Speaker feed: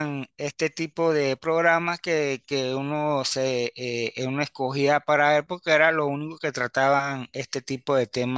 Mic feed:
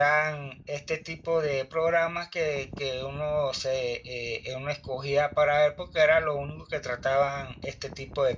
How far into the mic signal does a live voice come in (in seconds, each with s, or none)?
none